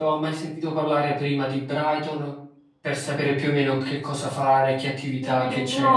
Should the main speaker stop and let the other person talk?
Yes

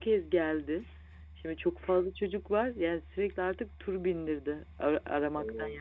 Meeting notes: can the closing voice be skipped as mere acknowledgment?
Yes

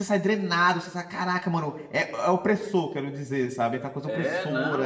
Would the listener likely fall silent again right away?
No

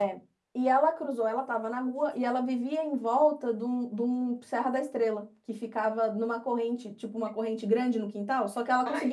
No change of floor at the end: Yes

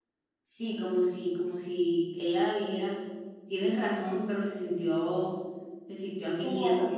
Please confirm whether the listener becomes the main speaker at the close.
No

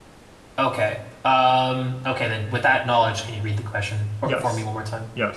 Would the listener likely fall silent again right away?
No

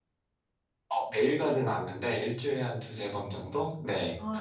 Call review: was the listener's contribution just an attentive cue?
No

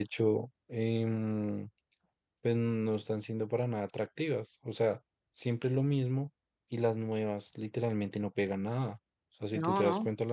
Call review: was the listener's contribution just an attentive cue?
Yes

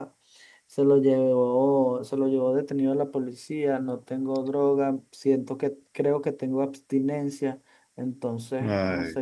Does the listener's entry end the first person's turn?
Yes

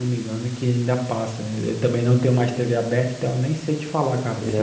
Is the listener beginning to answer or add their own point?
Yes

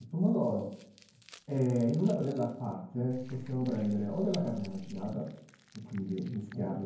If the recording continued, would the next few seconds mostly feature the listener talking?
No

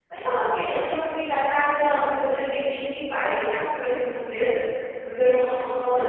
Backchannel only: No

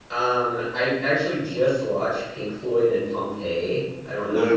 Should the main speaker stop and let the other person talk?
No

